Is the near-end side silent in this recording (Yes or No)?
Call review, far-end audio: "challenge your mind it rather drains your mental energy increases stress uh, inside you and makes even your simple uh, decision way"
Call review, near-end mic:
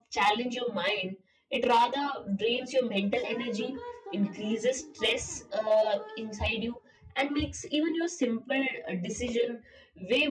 No